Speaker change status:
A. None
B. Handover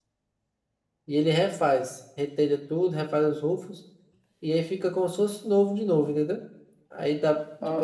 A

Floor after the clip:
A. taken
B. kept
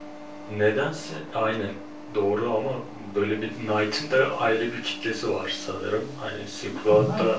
A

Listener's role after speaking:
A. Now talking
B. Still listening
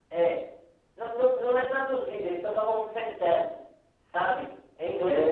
A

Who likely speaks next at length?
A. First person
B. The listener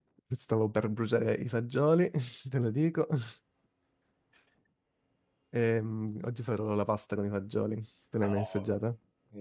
B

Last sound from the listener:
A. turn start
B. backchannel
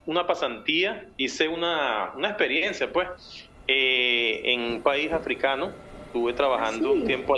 B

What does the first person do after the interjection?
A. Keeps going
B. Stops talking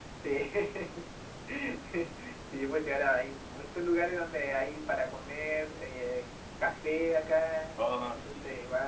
A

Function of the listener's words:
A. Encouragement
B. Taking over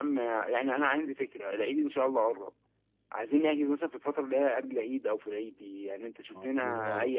A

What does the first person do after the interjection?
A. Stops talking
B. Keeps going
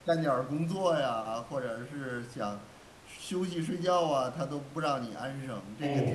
A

